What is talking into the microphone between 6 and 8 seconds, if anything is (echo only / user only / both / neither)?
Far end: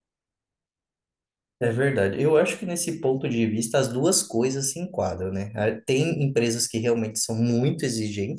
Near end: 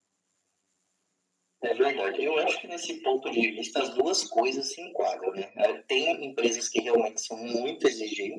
echo only